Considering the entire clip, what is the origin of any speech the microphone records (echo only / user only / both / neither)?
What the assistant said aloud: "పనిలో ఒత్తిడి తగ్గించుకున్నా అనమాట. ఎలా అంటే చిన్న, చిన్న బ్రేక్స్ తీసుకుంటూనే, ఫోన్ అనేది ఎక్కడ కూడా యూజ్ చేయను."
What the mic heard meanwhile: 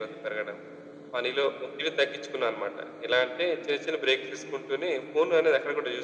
echo only